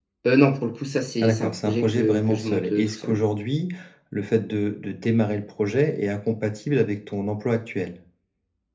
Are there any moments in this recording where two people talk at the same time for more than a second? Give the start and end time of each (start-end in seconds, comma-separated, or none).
1.2-3.2